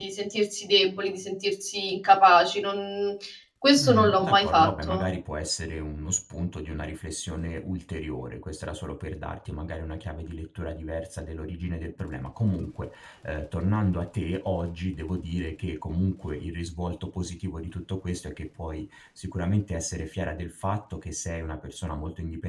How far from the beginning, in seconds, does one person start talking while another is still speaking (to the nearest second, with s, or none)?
4 s